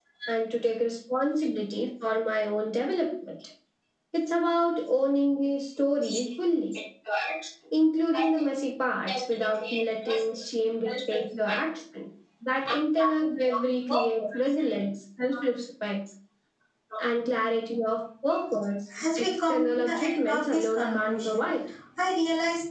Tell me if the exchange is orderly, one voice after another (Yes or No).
No